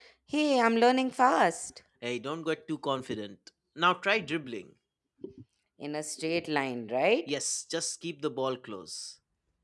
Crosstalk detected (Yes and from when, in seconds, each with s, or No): No